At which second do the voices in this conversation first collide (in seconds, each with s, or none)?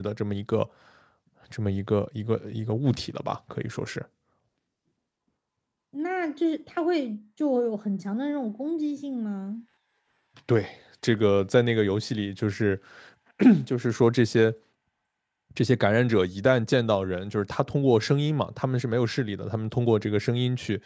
none